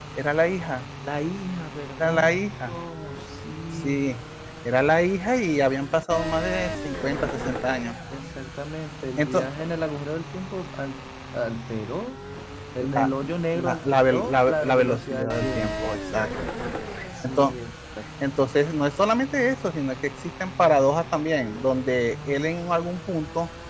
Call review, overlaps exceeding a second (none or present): present